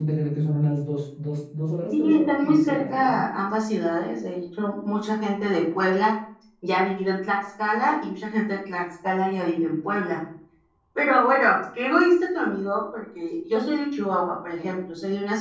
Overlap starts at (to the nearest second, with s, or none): 2 s